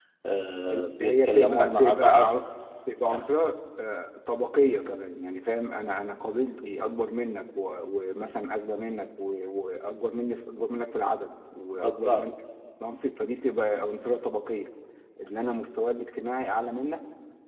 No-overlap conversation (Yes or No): No